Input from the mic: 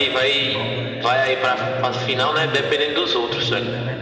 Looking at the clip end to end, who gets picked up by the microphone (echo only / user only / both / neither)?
both